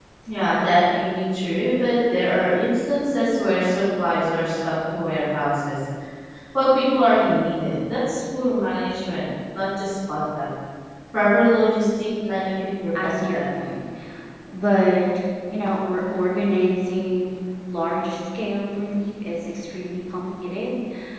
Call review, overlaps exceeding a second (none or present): none